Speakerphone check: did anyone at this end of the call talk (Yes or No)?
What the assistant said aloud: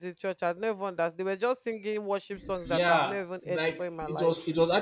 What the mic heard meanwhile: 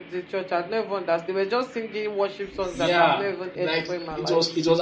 No